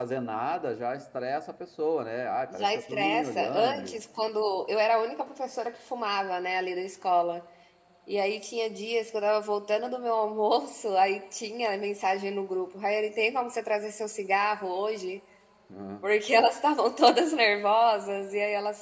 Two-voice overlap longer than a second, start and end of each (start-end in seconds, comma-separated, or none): 2.5-4.0